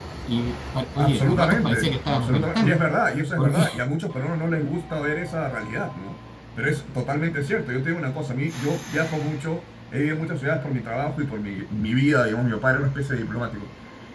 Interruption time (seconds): 1.0 s

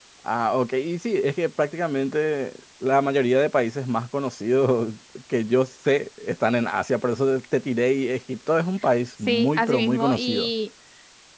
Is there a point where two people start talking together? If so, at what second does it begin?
9.3 s

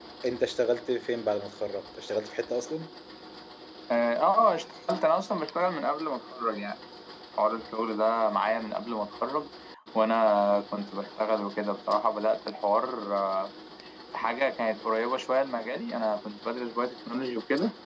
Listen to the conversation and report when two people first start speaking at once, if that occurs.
none

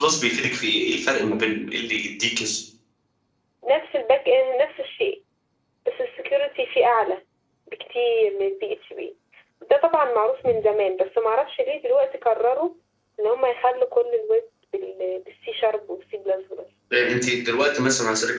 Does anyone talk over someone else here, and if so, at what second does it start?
none

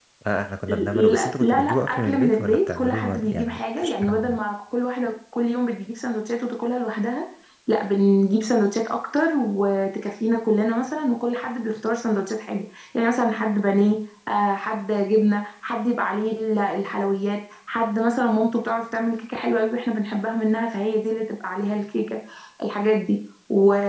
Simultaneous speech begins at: 0.9 s

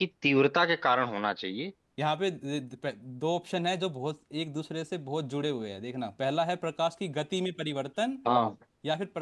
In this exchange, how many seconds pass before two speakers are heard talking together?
none

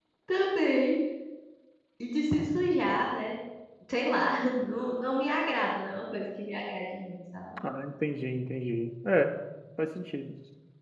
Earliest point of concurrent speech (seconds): none

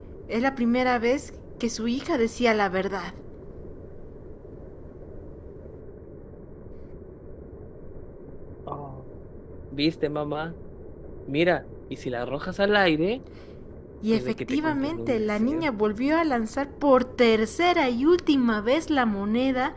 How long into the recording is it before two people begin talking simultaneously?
14.1 s

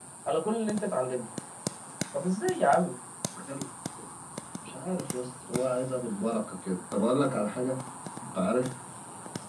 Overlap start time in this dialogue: none

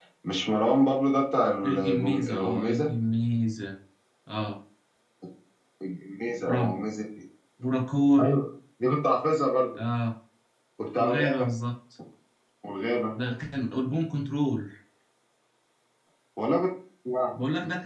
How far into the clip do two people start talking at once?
1.6 s

